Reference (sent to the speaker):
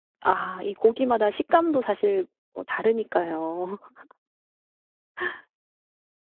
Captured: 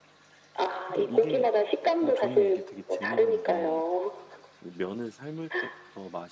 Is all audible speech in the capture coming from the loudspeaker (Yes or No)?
No